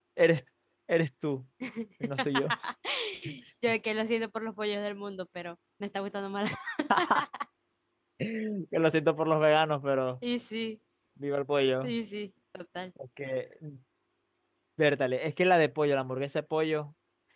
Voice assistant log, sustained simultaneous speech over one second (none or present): none